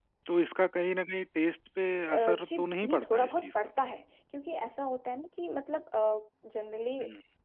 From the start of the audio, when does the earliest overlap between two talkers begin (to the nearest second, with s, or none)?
2 s